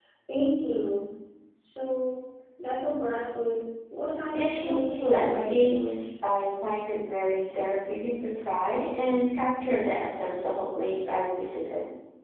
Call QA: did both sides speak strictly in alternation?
No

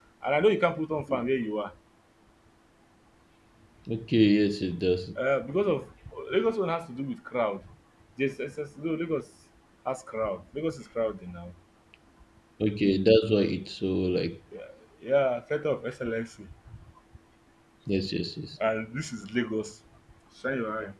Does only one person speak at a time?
Yes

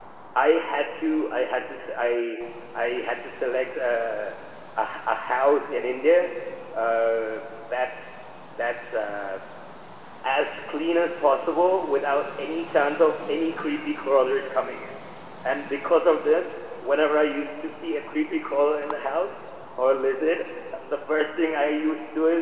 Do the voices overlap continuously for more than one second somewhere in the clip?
No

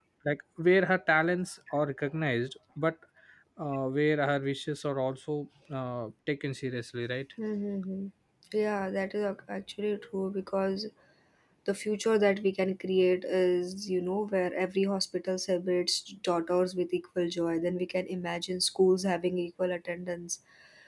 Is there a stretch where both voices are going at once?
No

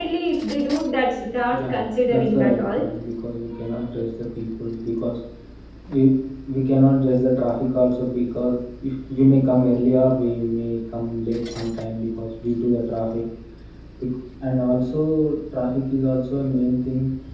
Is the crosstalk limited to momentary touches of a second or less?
No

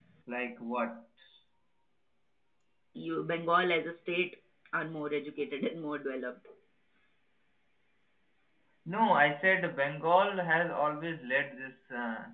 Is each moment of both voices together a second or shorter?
Yes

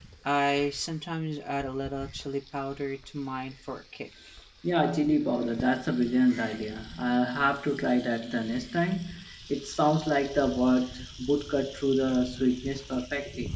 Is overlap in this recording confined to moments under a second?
Yes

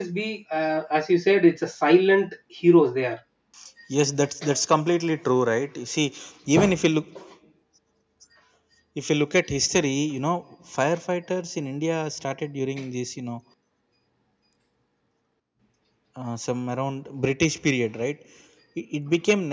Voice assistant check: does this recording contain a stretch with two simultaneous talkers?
No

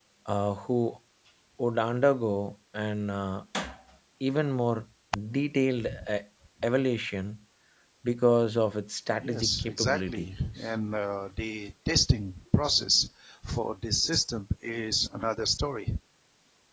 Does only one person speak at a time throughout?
No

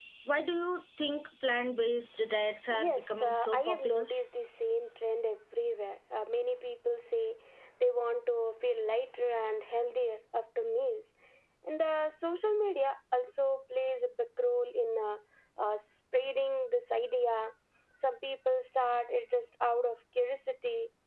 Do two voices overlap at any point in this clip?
Yes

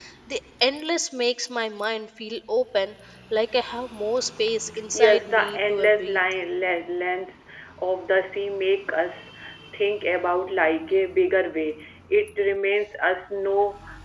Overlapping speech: Yes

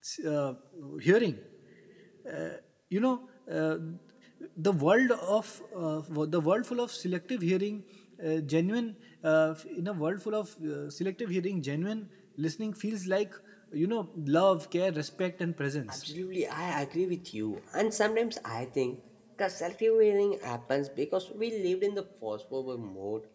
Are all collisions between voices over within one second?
Yes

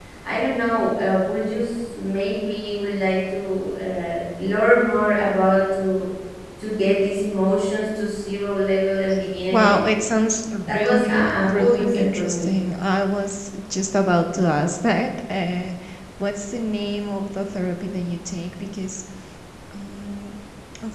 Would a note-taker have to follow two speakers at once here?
Yes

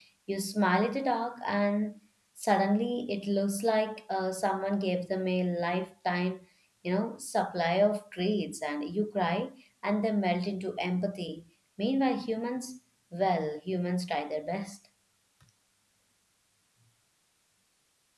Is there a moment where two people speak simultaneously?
No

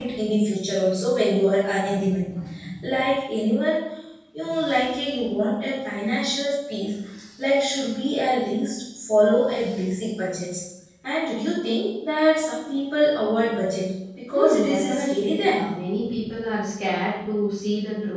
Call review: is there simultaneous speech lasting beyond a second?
Yes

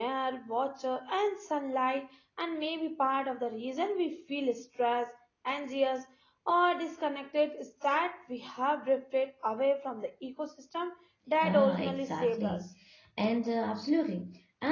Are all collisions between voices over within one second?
No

